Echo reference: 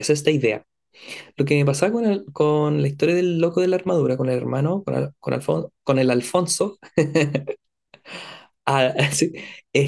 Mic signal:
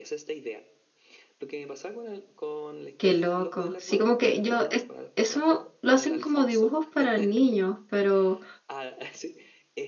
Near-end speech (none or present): present